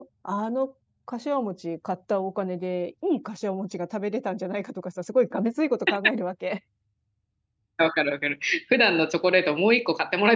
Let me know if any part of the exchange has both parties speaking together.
No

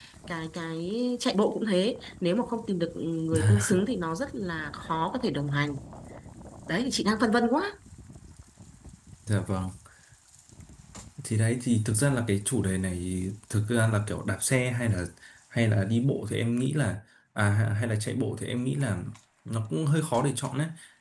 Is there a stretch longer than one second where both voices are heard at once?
No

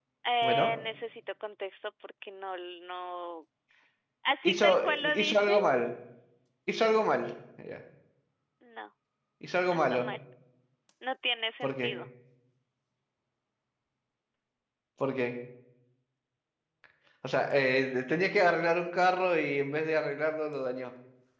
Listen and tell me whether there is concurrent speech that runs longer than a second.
Yes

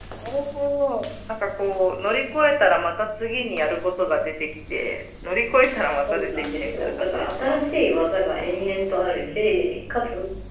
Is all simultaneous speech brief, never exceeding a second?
No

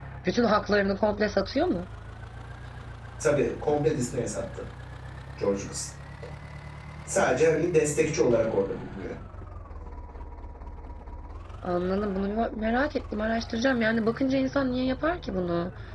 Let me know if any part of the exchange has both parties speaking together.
No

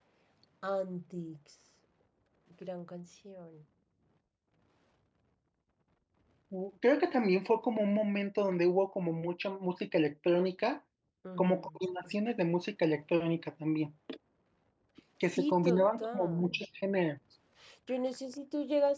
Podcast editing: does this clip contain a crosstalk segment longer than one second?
Yes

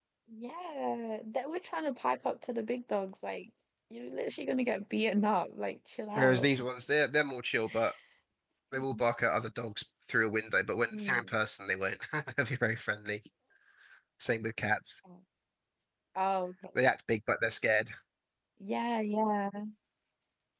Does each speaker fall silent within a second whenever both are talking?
Yes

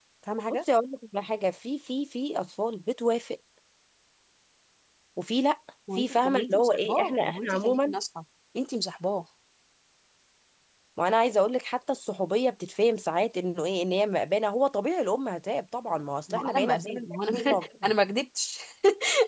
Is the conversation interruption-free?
No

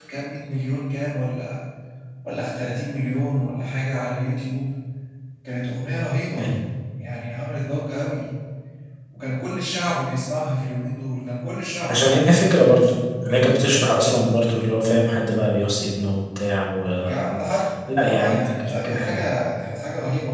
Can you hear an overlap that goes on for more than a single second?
Yes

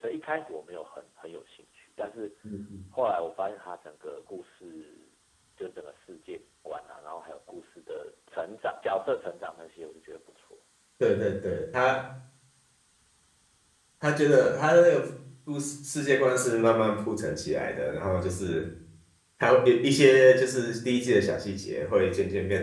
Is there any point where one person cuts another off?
No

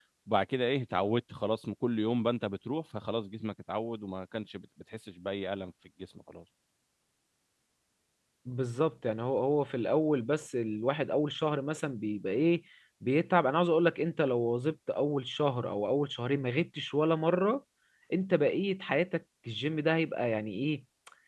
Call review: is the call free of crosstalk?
Yes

